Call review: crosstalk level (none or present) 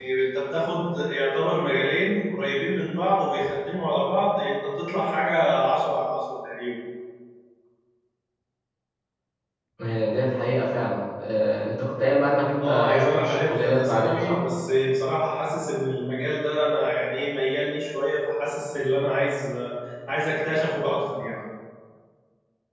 present